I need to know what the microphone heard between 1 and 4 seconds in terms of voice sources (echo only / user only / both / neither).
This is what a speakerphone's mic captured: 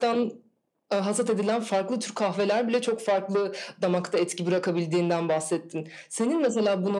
echo only